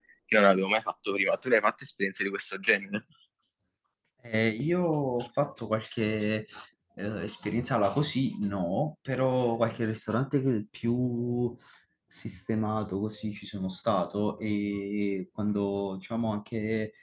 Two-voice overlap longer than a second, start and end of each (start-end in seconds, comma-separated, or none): none